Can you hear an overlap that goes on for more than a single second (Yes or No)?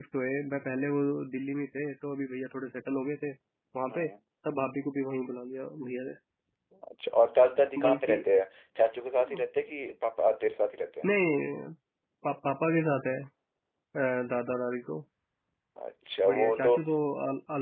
No